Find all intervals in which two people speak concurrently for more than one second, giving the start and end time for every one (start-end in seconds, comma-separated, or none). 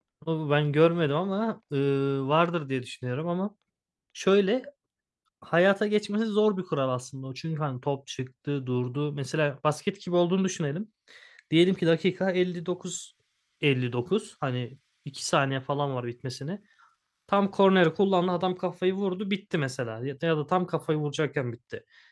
none